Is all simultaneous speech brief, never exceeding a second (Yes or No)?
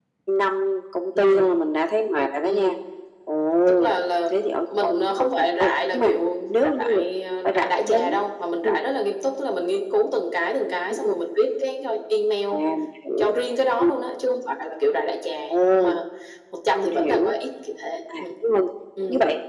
No